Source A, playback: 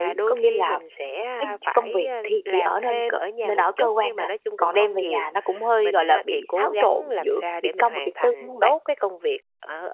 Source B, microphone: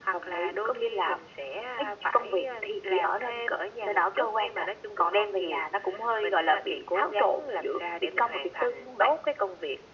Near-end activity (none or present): none